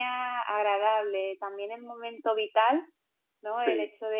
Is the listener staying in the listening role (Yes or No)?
Yes